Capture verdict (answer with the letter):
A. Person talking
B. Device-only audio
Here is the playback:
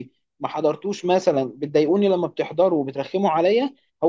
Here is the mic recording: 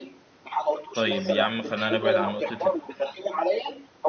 A